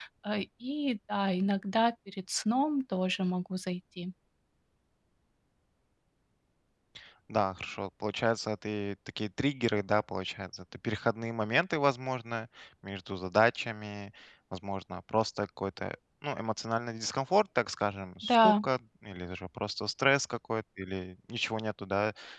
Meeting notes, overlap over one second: none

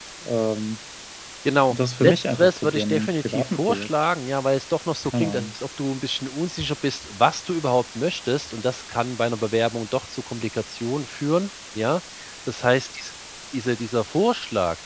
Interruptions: present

